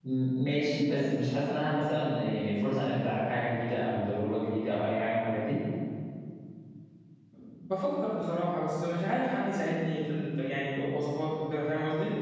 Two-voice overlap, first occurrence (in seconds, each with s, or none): none